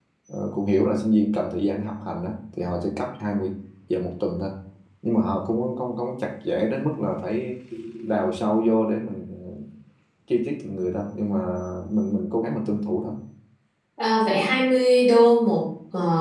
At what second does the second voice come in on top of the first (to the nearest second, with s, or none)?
none